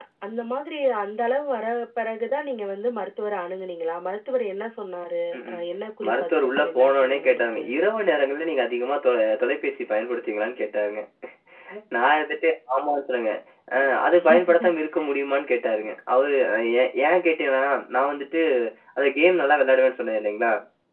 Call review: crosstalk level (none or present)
present